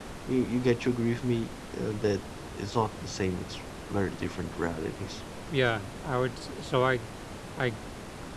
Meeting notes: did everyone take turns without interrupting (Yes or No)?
Yes